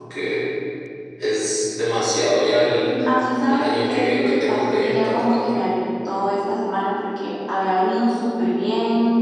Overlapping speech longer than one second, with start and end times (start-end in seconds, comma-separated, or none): 3.5-5.6